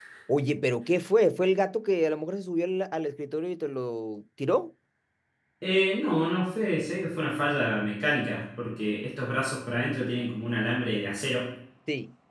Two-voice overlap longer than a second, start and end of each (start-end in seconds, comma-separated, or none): none